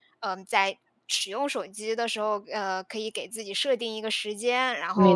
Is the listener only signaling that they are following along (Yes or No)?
Yes